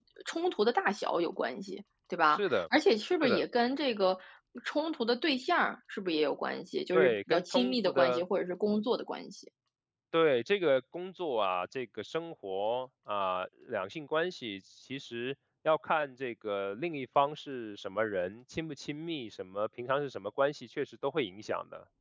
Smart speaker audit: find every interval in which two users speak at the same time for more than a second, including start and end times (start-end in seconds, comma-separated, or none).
6.9-8.2